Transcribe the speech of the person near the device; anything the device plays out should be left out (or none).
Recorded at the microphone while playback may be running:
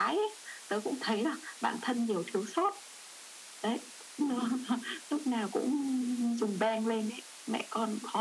none